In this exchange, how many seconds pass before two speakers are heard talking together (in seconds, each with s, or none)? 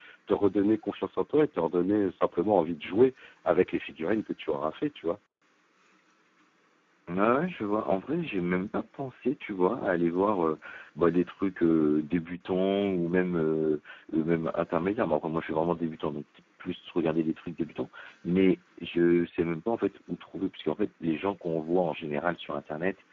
none